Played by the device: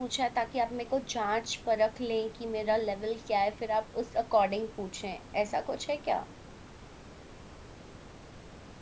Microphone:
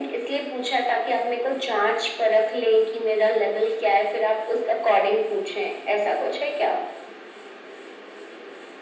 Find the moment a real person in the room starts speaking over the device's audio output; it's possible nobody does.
none

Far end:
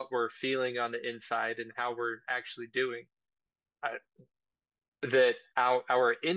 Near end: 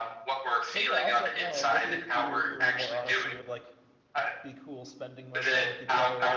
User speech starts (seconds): 0.7 s

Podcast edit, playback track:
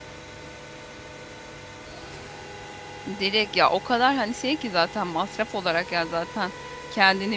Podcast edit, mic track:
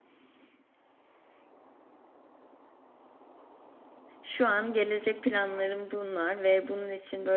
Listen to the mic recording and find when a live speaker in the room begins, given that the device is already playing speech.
4.2 s

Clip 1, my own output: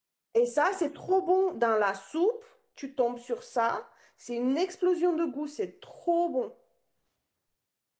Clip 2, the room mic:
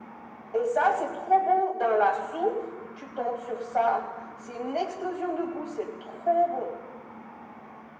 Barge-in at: none

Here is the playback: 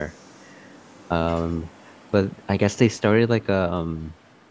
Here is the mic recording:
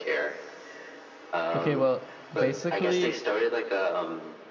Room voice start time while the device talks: 1.5 s

